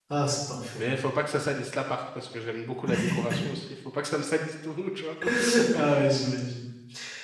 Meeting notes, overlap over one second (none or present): none